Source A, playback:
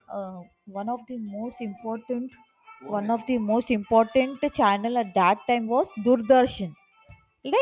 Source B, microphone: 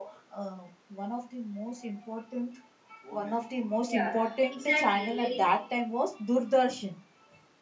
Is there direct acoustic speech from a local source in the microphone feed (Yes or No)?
Yes